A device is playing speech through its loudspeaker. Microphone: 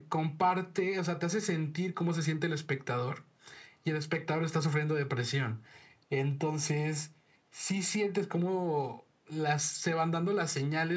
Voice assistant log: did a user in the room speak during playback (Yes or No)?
No